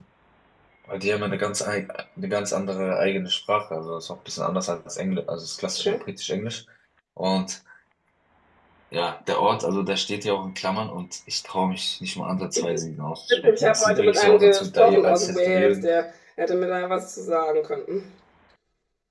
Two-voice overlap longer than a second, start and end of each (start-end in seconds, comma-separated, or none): 13.5-15.8